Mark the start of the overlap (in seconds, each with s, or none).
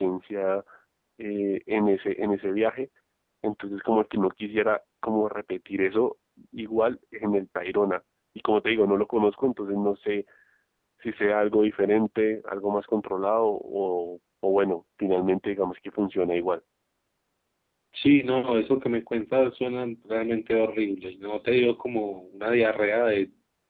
none